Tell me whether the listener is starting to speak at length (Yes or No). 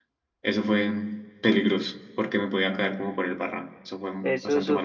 Yes